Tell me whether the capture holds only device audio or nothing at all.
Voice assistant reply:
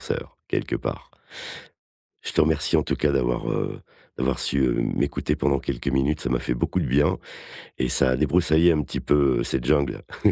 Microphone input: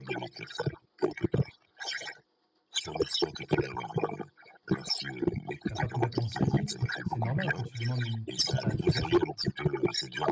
No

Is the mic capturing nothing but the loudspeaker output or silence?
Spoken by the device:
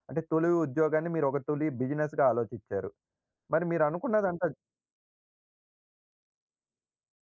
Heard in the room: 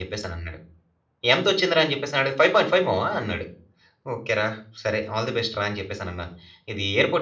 No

